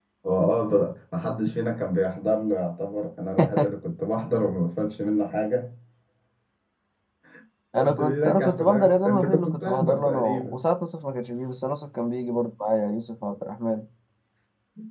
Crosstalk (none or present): present